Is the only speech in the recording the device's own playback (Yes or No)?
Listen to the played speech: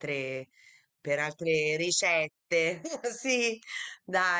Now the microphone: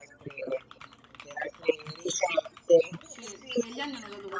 No